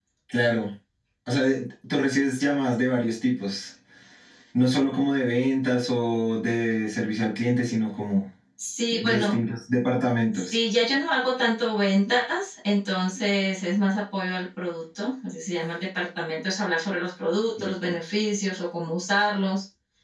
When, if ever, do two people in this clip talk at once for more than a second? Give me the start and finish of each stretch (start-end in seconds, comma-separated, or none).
none